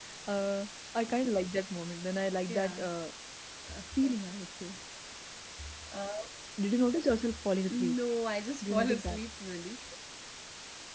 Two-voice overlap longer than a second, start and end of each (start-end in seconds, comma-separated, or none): none